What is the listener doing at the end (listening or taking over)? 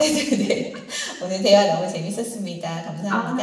taking over